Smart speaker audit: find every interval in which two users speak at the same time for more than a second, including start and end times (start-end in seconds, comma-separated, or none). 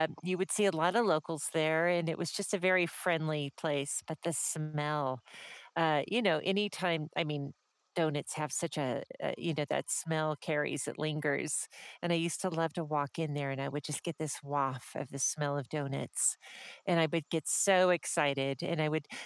none